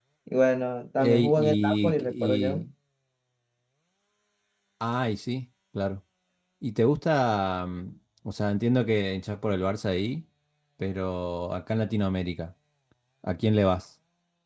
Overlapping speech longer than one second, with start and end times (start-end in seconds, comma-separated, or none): 1.0-2.6